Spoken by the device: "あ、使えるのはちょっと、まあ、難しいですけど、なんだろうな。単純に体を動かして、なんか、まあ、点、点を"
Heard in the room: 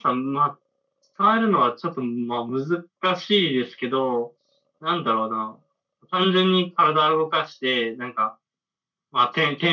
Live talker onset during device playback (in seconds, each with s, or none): none